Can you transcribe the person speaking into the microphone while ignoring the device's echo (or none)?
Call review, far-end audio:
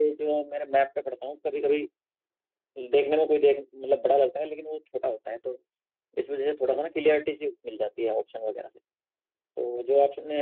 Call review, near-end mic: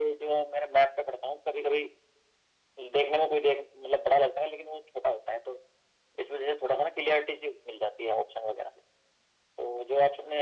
none